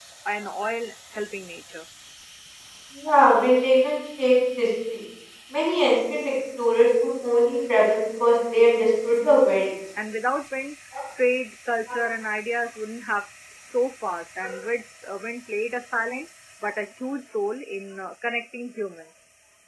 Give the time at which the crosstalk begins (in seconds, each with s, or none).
none